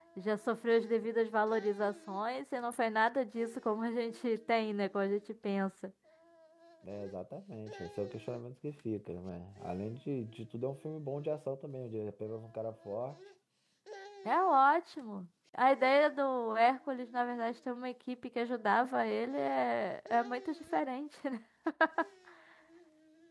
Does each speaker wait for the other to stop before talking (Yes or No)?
Yes